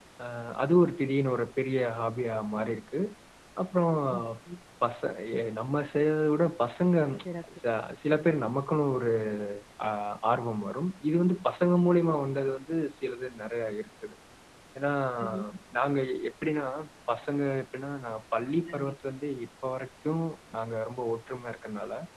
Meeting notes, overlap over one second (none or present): none